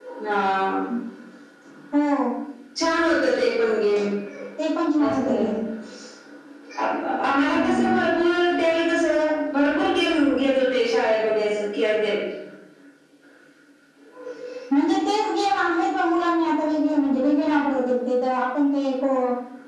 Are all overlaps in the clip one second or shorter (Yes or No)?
Yes